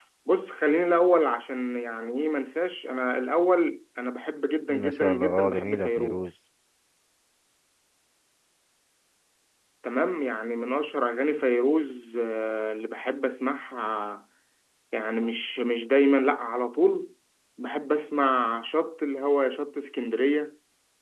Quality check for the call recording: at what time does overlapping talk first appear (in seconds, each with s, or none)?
4.7 s